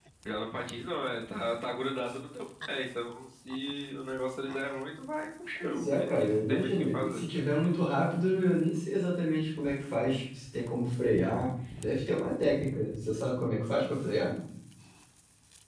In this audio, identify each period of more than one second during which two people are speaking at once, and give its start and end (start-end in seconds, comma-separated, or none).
5.6-7.2